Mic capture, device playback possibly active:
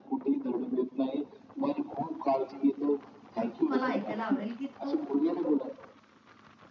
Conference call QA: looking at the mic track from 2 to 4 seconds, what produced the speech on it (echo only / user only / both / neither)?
both